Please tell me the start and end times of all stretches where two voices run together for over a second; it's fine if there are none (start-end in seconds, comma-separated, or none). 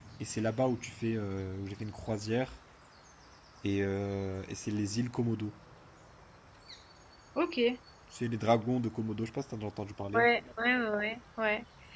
none